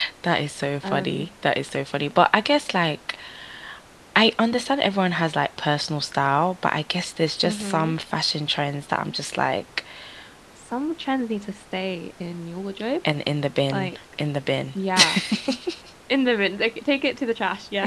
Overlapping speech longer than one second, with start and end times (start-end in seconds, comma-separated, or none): none